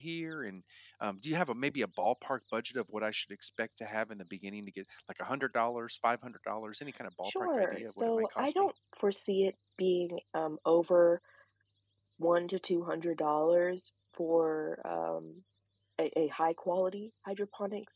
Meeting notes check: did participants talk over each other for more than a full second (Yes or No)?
Yes